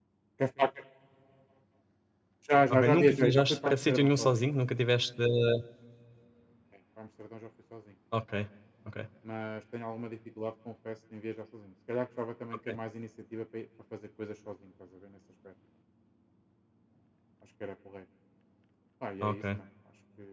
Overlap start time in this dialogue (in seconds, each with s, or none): 2.7 s